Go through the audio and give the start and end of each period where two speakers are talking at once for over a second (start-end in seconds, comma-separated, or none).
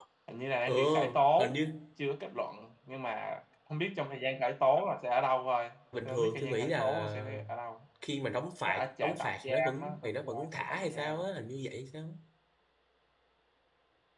6.0-7.4, 8.7-11.2